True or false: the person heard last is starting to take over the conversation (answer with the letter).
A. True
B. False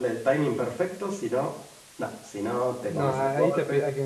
A